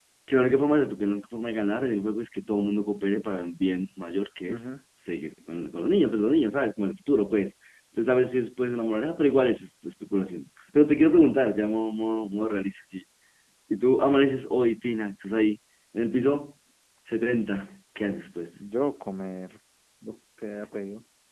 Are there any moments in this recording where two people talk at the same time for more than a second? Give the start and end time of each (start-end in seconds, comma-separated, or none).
none